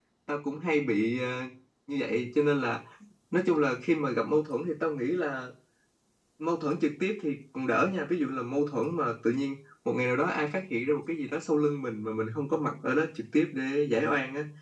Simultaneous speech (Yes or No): No